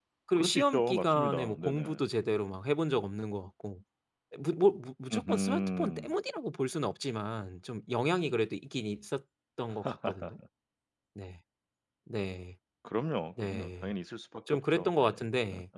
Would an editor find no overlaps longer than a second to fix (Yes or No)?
No